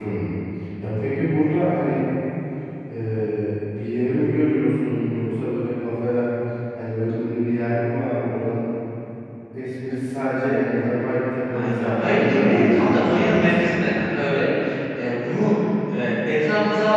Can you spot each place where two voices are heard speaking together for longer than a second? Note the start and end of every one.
11.5-13.8

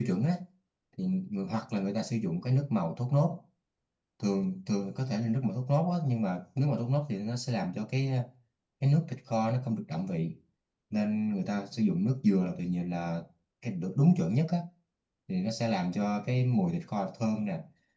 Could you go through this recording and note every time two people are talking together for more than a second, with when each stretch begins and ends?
none

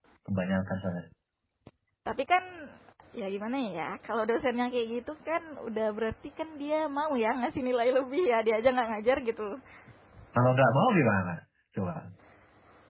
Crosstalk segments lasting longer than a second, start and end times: none

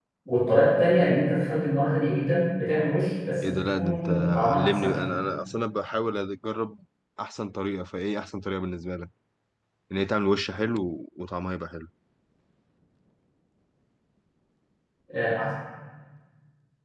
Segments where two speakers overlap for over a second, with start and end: 3.4-5.2

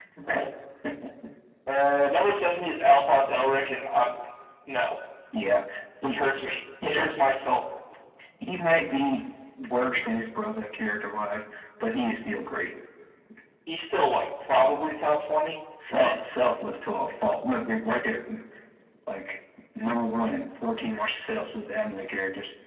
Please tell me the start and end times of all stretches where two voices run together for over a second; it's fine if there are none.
none

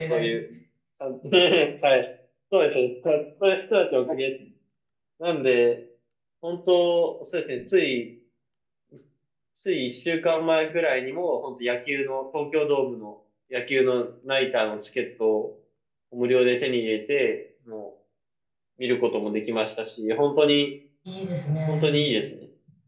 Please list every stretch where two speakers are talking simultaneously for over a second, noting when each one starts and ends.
none

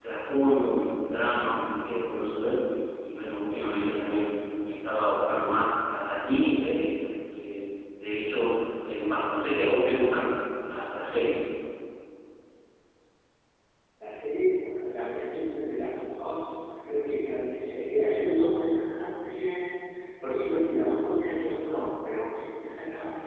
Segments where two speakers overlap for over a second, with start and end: none

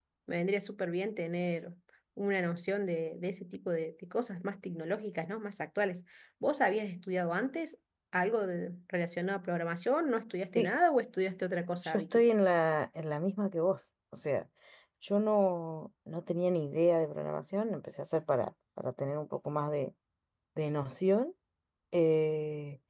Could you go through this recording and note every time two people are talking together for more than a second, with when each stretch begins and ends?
none

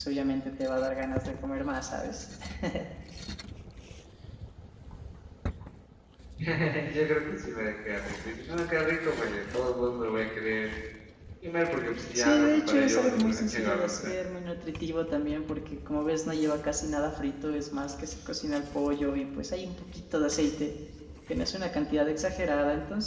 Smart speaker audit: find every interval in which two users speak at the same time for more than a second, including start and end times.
12.2-14.1

